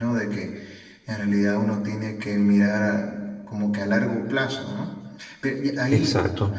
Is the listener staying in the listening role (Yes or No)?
Yes